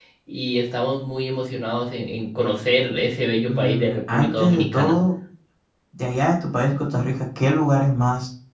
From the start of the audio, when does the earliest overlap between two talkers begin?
3 s

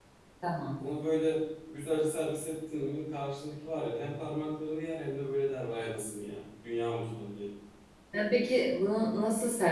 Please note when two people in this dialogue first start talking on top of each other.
none

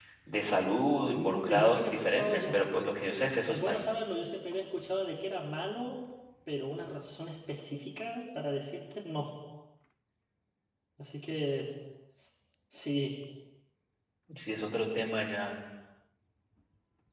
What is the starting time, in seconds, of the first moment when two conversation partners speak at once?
1 s

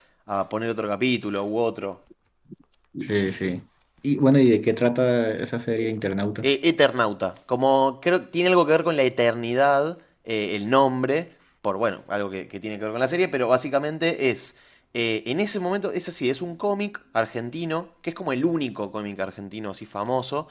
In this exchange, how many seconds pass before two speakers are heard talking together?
none

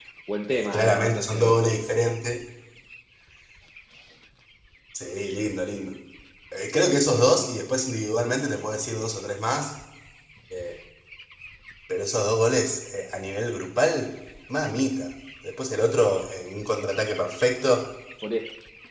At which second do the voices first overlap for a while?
1 s

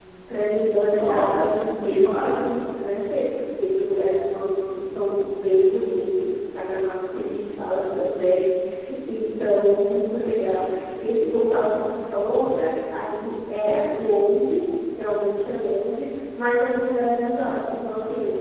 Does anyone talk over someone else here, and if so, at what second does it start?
1 s

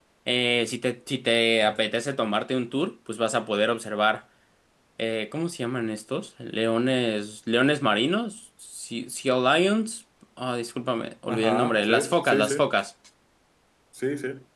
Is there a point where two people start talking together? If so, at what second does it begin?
11 s

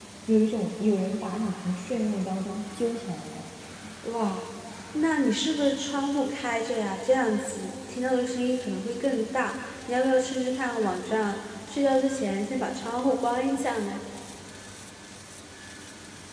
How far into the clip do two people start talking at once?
none

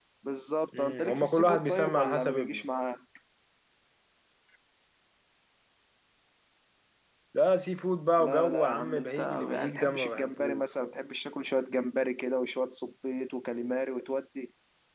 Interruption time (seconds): 1 s

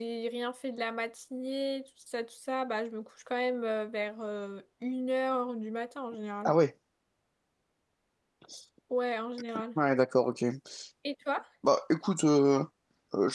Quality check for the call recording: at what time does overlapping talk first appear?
none

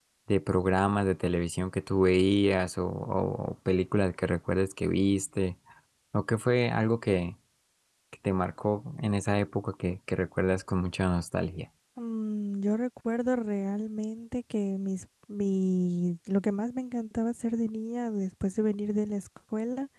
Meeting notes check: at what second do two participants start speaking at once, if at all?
none

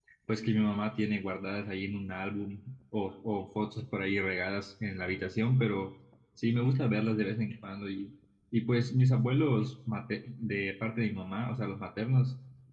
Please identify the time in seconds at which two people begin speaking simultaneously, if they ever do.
none

